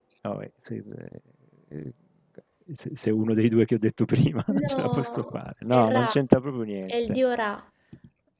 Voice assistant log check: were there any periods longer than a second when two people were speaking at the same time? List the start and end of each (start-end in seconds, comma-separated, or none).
4.6-6.1